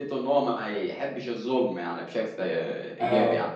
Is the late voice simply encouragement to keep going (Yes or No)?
No